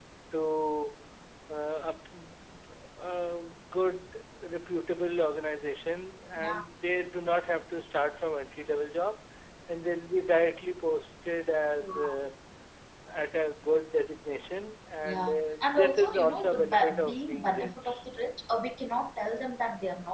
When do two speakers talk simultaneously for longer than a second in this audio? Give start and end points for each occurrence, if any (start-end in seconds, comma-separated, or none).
15.0-18.0